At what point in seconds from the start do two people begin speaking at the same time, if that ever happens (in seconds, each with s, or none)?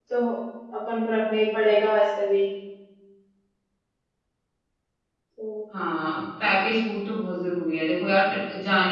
none